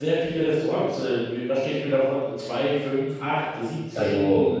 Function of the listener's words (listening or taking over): taking over